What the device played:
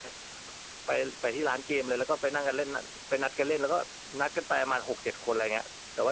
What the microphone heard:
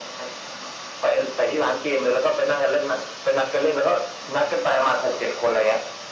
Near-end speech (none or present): none